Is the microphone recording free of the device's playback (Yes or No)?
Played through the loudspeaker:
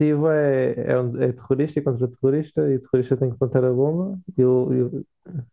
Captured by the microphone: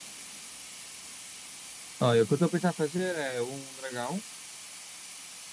Yes